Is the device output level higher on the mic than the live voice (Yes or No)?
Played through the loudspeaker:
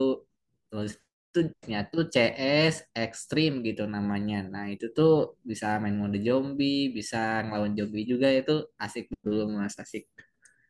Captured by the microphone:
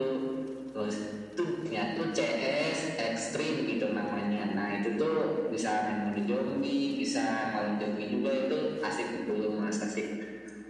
Yes